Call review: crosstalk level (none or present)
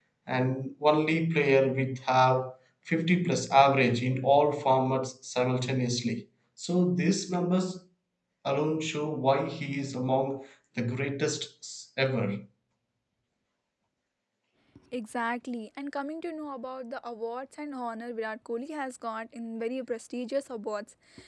none